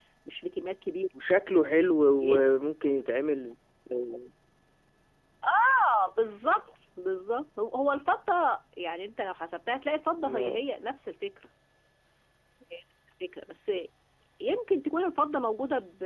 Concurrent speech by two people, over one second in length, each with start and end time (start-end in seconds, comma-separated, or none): none